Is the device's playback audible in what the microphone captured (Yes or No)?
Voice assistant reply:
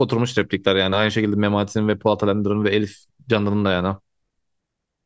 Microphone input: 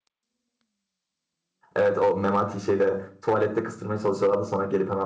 No